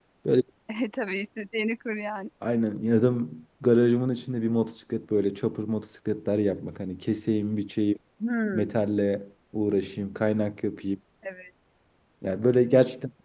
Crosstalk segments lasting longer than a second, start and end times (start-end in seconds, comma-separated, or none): none